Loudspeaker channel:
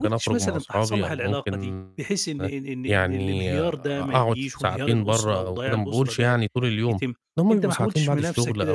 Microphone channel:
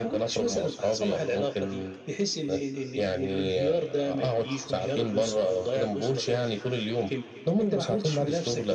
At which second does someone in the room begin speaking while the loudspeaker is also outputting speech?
5.1 s

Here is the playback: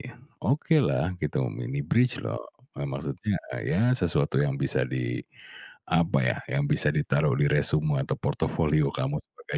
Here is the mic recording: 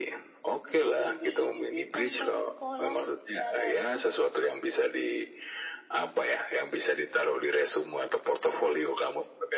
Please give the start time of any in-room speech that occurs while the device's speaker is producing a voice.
0.7 s

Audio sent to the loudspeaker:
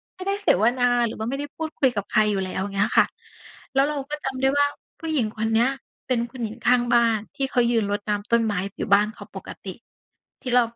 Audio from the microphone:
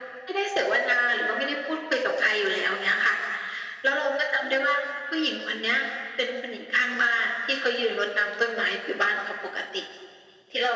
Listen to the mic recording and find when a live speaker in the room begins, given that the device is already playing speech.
none

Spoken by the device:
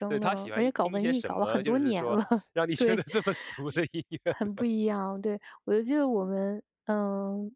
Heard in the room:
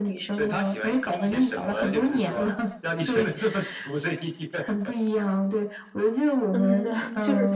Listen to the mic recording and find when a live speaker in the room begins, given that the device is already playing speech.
6.5 s

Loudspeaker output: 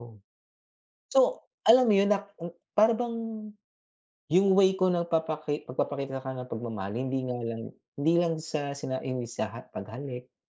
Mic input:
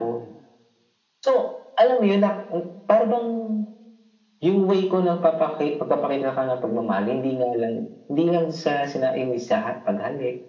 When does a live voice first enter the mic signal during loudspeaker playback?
none

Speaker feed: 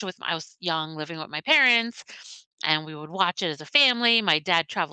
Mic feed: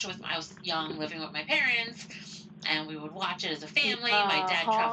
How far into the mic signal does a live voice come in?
3.8 s

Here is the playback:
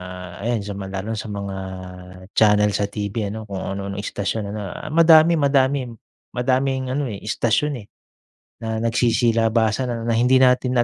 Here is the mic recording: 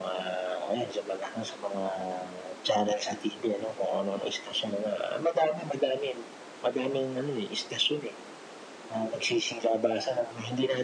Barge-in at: none

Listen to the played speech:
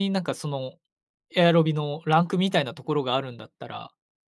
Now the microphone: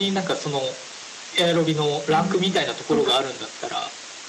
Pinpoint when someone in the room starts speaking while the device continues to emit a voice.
2.1 s

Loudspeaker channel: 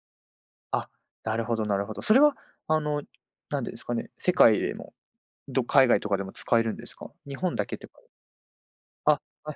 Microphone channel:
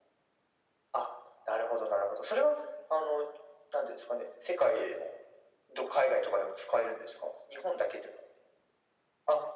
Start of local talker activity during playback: none

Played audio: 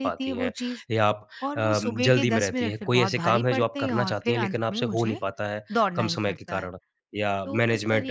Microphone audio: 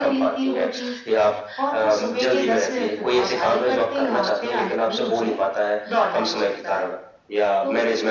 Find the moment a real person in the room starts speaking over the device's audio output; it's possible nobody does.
none

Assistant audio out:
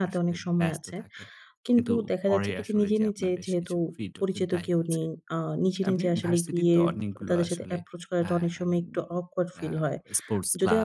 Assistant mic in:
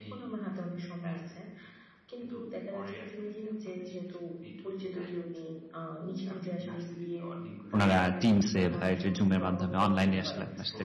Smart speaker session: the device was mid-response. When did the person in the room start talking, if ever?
7.7 s

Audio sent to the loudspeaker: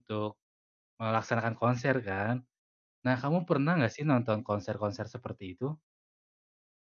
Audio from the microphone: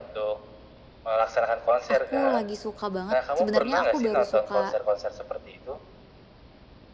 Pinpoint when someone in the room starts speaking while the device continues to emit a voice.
1.9 s

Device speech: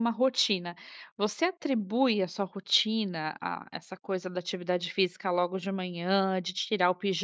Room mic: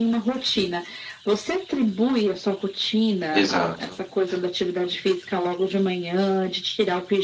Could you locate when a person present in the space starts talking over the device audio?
3.3 s

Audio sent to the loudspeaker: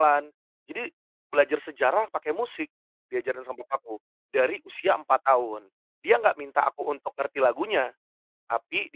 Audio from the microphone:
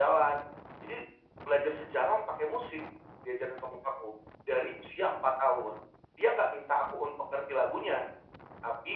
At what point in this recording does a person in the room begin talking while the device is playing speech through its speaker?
none

